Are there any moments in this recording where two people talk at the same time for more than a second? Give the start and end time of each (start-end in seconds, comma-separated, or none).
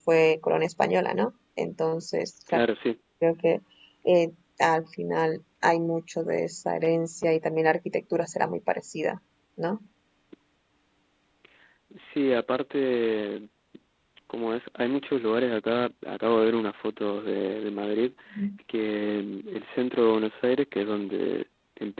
none